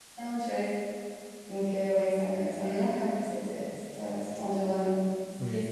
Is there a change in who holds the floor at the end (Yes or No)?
Yes